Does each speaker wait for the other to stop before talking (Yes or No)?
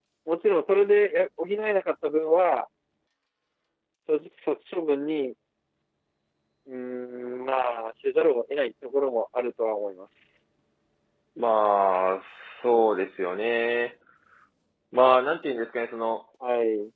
Yes